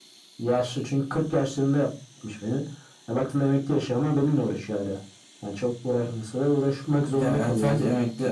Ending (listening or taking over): taking over